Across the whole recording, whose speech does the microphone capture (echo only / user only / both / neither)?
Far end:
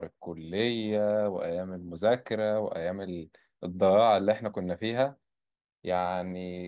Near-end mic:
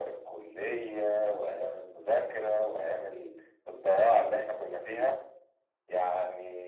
echo only